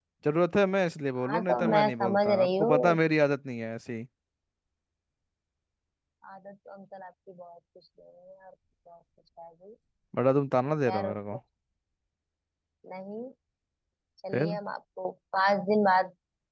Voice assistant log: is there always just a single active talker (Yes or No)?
No